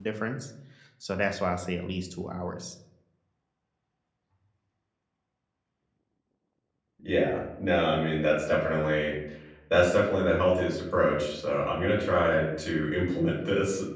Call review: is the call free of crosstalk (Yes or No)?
Yes